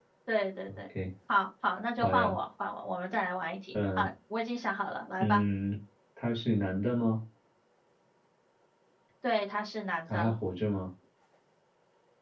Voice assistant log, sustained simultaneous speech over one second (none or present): none